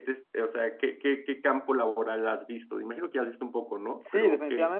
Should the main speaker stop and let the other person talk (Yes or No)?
Yes